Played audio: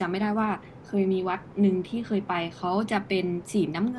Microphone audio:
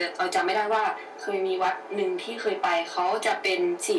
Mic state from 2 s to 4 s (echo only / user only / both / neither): echo only